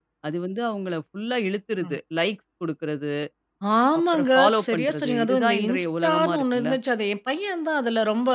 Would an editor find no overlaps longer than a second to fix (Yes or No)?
No